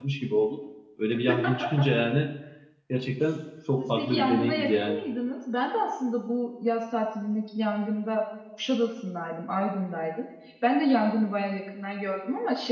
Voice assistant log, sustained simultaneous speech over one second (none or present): present